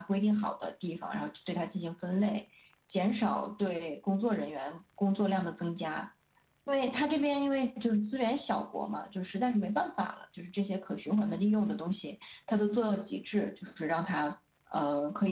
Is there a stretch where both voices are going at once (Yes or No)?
No